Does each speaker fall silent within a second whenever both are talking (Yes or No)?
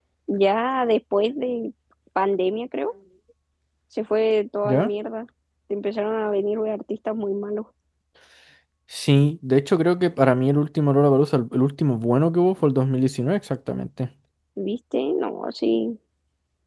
Yes